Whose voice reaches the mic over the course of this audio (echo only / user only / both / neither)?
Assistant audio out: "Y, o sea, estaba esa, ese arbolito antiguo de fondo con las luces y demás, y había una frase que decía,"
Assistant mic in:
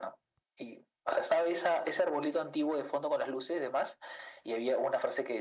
echo only